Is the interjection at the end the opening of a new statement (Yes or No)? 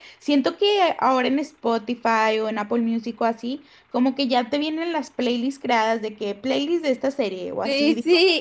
Yes